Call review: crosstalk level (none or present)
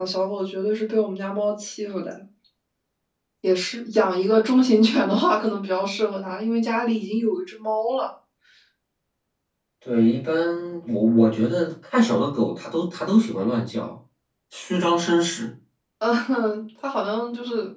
none